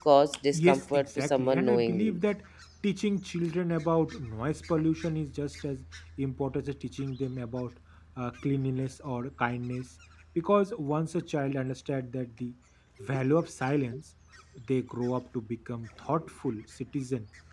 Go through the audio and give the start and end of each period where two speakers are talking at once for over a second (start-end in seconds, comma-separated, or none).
0.5-2.2